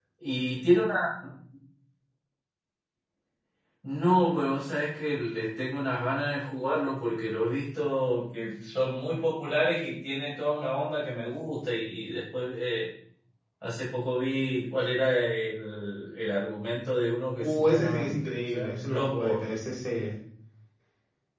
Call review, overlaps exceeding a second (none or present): present